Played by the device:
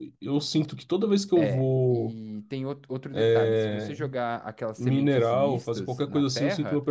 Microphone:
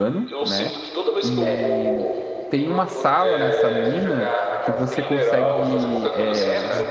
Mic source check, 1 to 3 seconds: both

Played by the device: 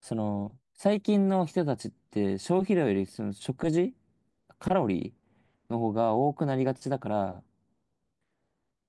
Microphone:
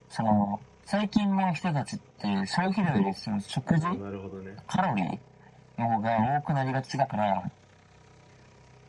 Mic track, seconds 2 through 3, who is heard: echo only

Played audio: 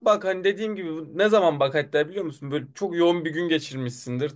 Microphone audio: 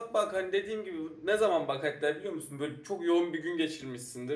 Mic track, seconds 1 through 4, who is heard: echo only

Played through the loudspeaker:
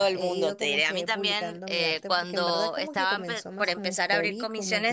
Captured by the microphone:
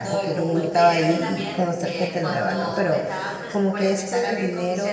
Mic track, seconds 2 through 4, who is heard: both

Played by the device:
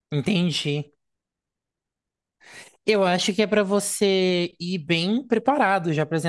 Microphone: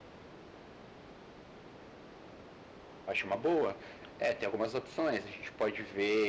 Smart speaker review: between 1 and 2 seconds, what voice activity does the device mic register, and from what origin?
neither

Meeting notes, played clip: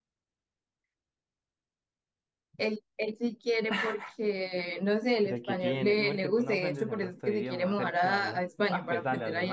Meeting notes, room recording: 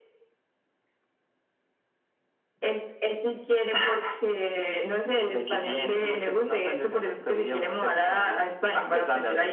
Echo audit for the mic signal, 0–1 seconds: neither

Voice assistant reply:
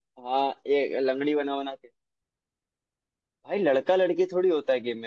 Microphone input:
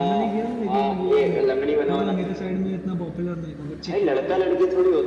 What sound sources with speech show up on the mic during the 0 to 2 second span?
both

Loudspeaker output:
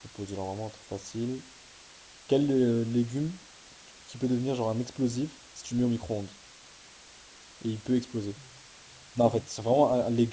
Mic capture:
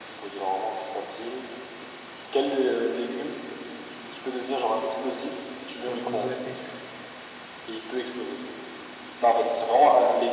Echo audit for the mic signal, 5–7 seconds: both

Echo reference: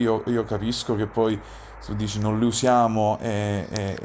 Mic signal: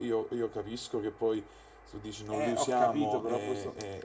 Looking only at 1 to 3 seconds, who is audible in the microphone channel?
both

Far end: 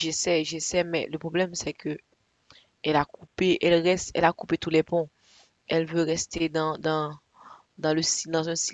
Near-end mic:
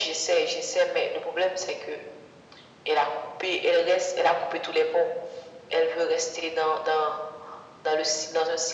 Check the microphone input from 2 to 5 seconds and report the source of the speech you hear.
echo only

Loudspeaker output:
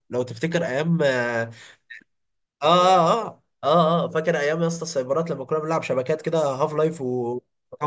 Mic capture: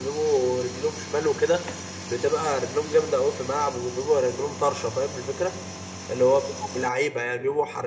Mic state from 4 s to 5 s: user only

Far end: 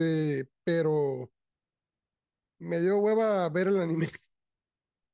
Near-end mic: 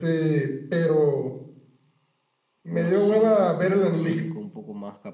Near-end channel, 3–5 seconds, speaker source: both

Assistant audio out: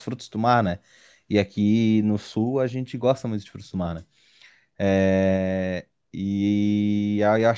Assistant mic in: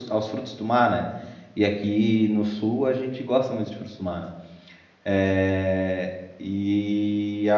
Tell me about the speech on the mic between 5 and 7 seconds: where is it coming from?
echo only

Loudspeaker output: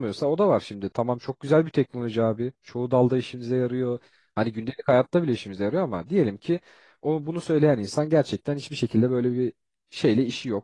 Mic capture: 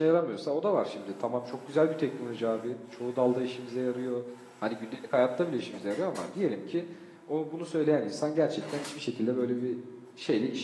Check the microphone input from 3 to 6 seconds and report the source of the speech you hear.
echo only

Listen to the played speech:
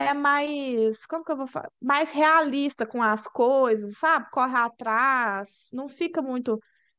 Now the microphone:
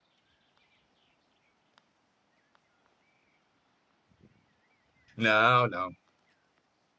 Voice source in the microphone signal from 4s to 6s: user only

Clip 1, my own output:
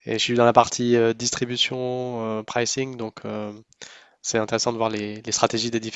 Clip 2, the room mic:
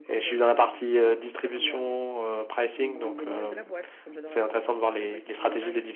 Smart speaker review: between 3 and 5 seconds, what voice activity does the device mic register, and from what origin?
both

